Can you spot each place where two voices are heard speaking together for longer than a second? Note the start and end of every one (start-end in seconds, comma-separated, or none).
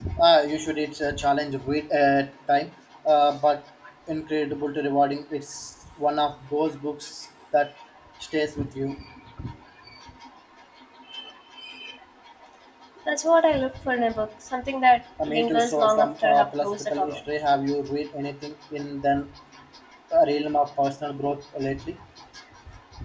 15.3-17.2